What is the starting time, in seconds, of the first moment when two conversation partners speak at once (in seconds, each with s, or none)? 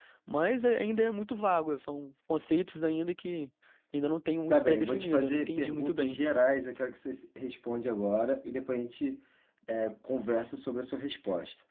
4.5 s